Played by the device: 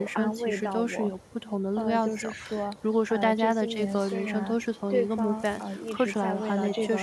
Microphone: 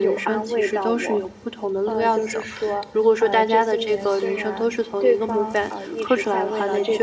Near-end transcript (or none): none